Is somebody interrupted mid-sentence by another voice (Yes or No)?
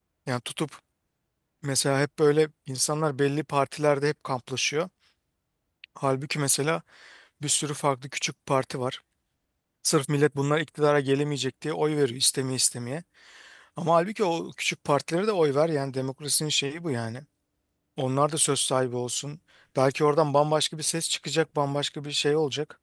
No